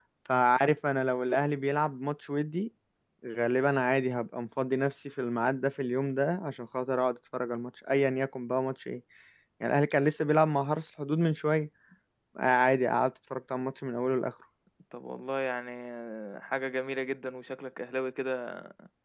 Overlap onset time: none

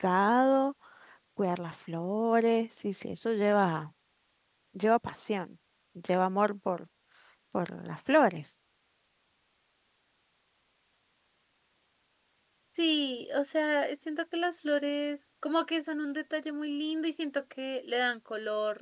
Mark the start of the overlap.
none

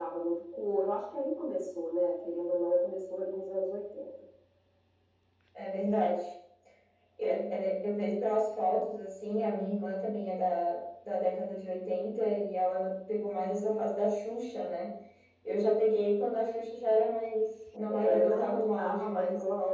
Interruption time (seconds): 17.9 s

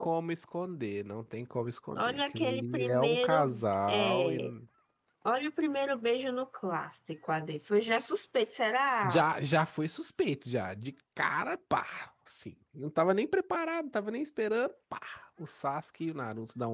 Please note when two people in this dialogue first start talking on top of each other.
1.9 s

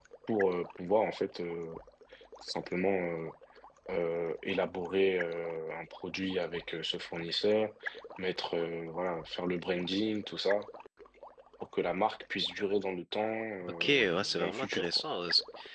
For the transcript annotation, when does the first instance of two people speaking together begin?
13.6 s

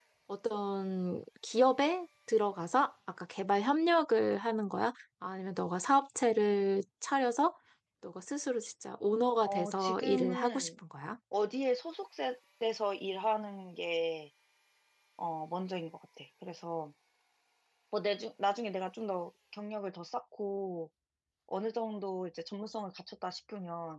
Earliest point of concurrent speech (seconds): 9.4 s

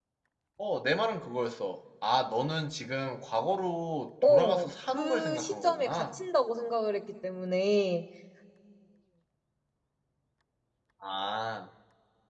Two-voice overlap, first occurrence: 4.2 s

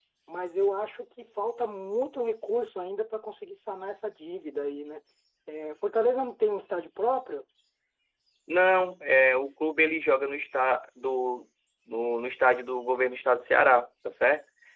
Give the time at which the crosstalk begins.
none

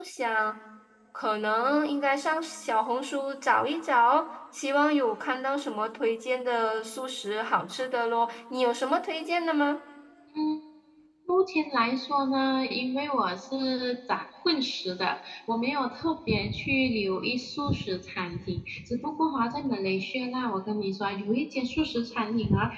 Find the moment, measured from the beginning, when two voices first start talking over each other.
none

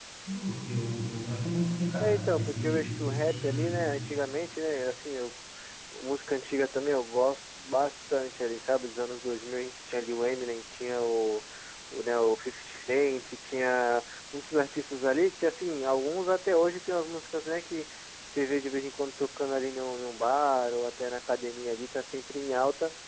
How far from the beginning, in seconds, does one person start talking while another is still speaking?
2.0 s

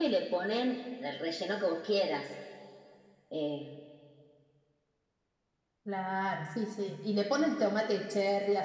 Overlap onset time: none

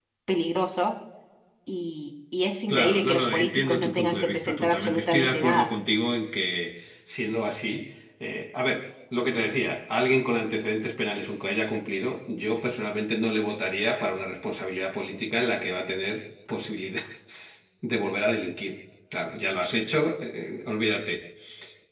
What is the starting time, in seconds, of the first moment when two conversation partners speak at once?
2.7 s

